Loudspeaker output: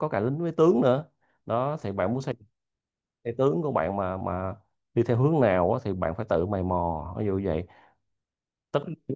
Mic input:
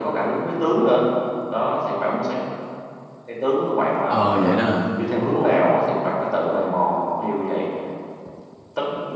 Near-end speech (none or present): present